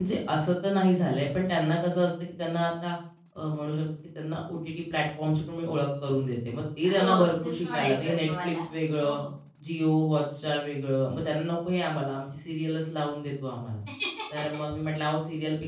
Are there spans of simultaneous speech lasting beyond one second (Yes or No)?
Yes